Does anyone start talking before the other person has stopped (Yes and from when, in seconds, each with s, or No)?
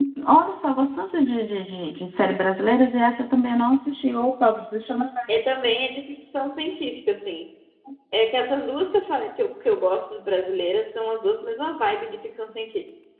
No